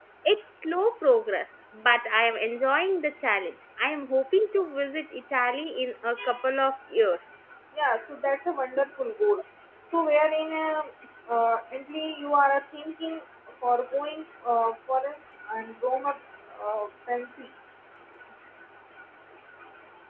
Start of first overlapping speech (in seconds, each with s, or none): none